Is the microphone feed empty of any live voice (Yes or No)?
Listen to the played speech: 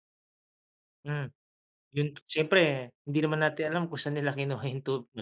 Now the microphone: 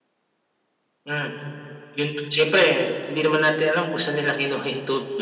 Yes